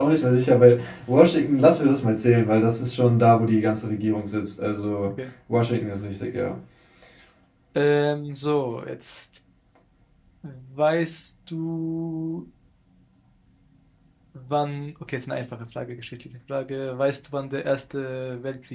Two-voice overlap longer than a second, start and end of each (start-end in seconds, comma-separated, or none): none